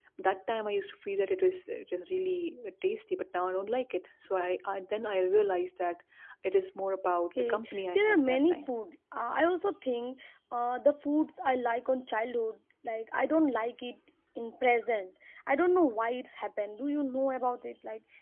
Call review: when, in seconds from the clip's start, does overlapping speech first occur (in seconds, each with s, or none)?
7.4 s